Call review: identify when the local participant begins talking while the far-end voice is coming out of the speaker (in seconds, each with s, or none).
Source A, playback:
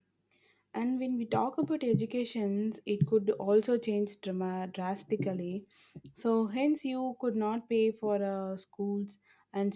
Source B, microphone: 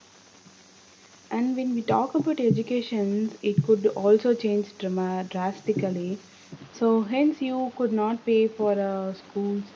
none